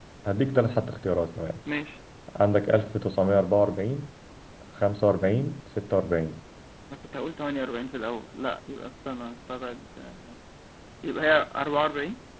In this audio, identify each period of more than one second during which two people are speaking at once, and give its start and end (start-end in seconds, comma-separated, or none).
none